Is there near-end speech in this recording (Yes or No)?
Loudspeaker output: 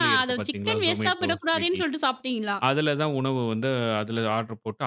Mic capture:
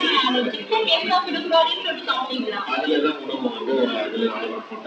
No